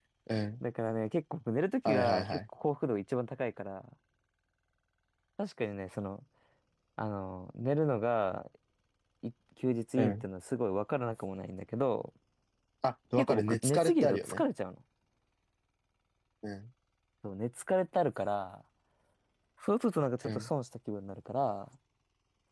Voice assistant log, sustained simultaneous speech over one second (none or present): present